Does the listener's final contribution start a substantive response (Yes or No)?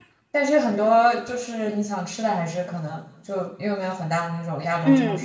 Yes